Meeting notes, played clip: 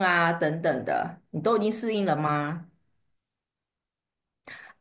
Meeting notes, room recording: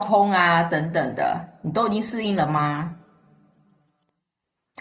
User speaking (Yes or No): No